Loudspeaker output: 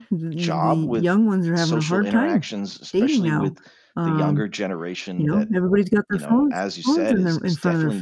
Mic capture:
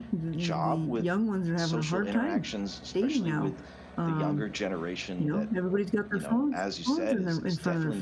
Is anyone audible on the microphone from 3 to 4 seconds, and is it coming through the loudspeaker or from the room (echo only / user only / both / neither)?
echo only